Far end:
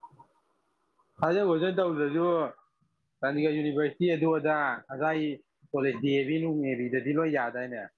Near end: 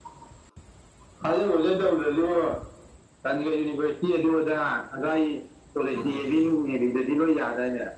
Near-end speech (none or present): present